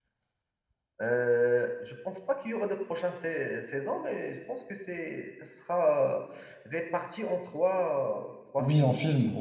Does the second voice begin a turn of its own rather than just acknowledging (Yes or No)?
Yes